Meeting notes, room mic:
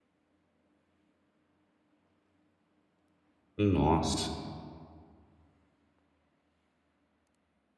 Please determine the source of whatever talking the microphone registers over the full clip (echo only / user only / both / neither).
user only